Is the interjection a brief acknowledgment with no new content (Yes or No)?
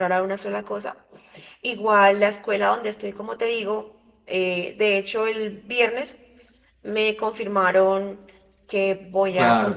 No